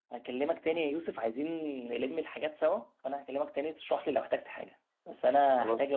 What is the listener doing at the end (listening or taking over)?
listening